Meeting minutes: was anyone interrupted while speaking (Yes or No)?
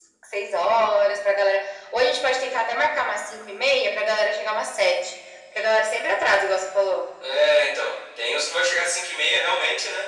No